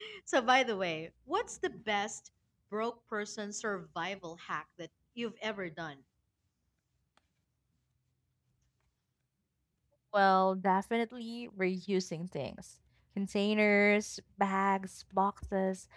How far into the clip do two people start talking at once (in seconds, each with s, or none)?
none